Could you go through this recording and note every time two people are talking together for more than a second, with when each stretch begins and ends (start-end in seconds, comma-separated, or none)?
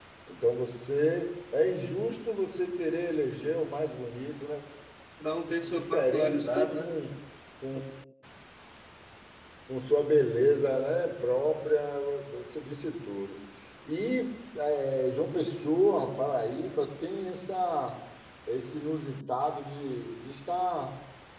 5.7-6.9